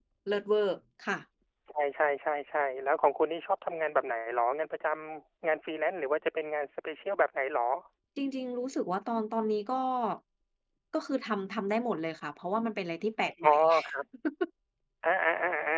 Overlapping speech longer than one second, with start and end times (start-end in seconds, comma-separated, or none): none